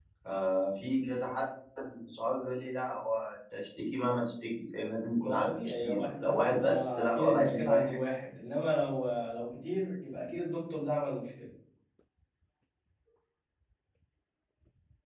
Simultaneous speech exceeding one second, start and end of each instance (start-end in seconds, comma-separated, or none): 5.2-8.0